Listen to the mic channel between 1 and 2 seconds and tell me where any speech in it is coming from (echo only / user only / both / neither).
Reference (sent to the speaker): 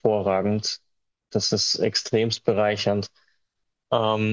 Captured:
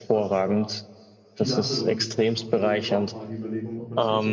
both